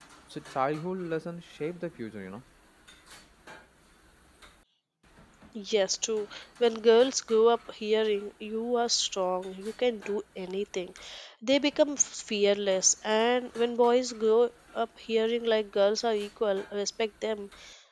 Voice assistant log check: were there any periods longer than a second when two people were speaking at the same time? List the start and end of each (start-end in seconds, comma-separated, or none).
none